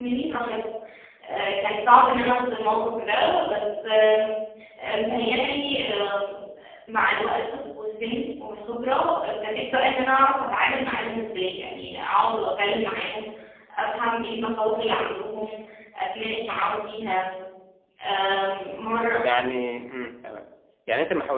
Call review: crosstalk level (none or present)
none